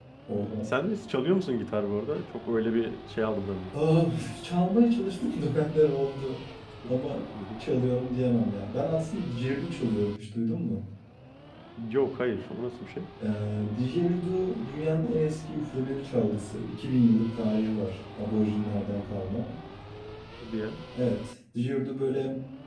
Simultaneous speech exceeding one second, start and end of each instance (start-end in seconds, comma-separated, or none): none